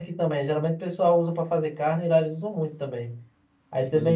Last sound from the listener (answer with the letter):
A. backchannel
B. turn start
A